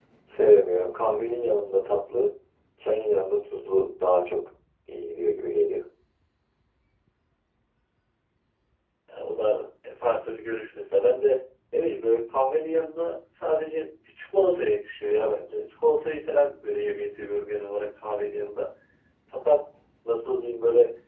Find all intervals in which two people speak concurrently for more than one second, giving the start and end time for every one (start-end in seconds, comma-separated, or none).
none